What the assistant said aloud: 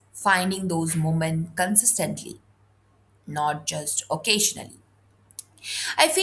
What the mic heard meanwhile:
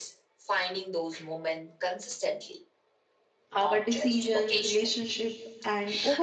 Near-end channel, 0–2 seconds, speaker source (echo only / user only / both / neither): echo only